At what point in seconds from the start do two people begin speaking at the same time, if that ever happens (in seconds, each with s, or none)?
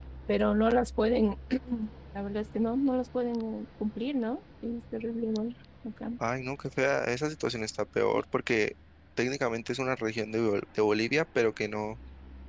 none